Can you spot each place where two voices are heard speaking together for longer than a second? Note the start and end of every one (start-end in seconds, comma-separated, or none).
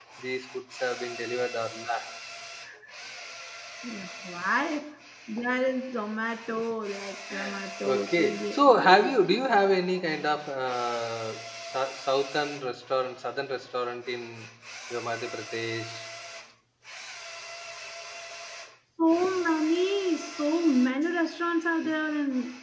7.8-9.2